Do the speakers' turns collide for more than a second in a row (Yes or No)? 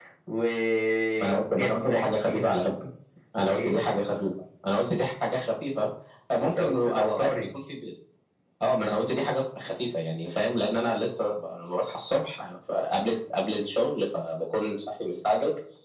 Yes